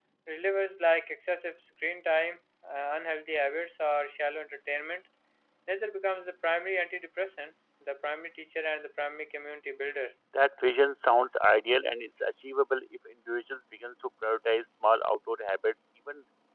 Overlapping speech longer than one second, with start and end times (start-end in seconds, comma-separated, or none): none